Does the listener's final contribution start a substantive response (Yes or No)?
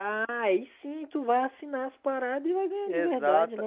Yes